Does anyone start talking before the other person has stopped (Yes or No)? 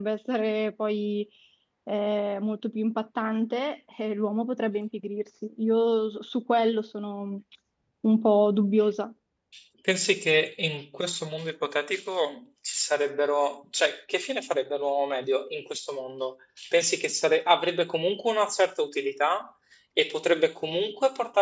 No